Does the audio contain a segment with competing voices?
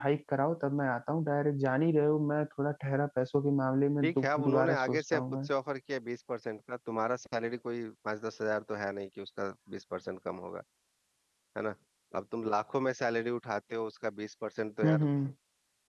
Yes, from 4.0 s

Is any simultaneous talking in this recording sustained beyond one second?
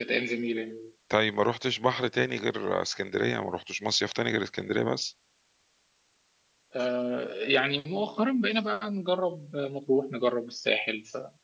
No

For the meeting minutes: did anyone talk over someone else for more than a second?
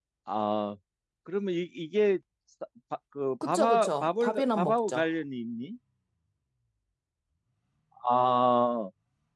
Yes, from 3.4 s

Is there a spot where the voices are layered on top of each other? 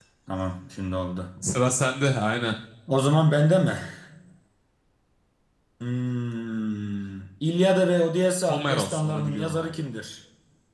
Yes, from 8.5 s

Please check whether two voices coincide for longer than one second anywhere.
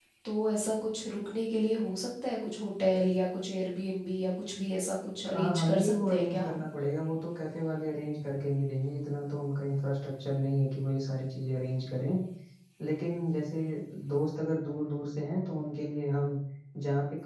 Yes, from 5.2 s

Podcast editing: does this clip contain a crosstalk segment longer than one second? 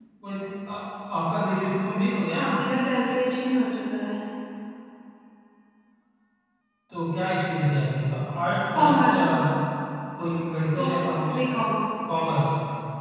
No

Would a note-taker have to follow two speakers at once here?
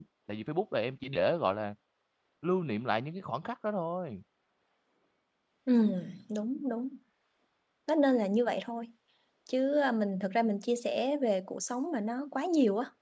No

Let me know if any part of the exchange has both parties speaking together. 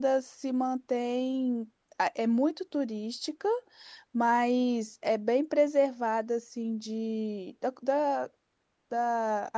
No

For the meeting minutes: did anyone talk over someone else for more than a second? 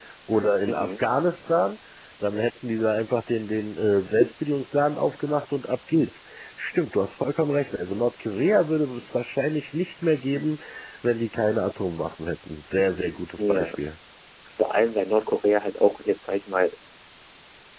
No

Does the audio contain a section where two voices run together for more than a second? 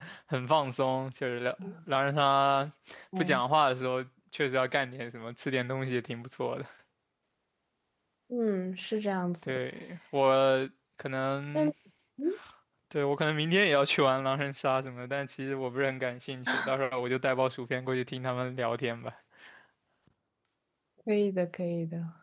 No

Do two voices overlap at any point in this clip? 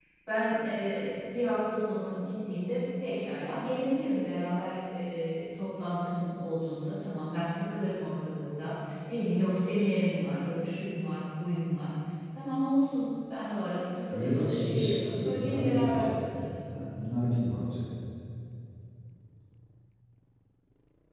Yes, from 14.1 s

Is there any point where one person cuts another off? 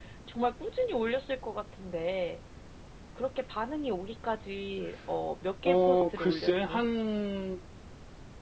Yes, from 5.7 s

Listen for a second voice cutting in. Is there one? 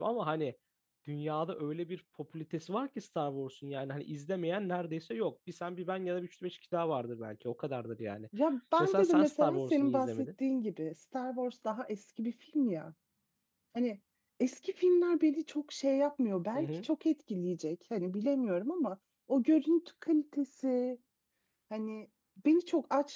Yes, from 8.8 s

